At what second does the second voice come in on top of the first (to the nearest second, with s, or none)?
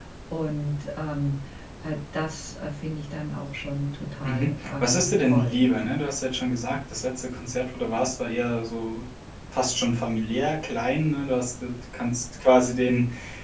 4 s